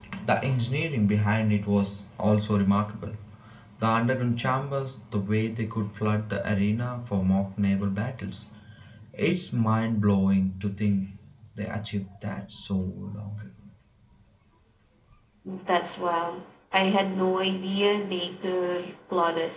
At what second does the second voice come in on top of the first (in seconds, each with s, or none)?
none